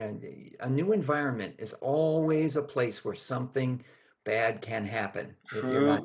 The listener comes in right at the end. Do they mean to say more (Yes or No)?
Yes